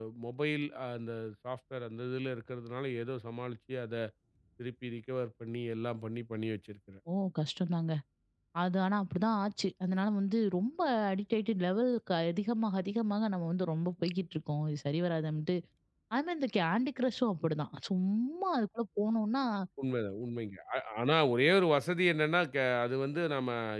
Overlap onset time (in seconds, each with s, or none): none